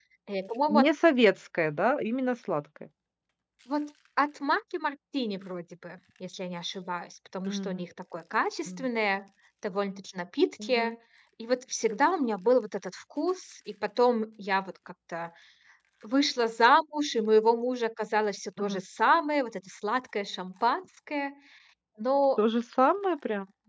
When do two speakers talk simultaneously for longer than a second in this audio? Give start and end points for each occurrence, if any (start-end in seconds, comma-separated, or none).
none